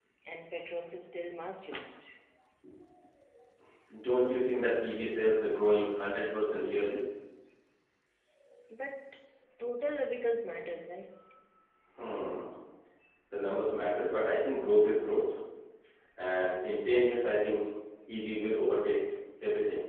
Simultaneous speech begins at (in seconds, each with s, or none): none